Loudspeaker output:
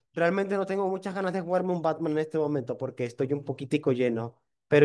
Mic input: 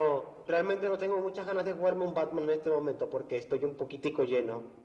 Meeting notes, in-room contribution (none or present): none